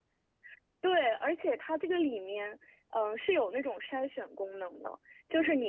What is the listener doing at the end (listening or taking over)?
listening